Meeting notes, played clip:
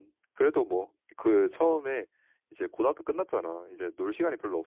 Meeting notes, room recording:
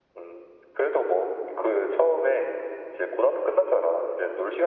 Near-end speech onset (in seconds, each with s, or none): none